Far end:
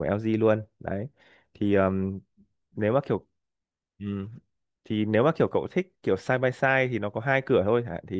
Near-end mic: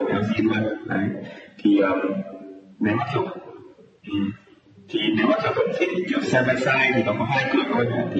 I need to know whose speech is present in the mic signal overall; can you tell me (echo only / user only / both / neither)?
echo only